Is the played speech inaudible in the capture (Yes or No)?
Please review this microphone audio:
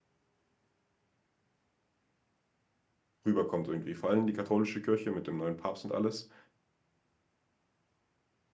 Yes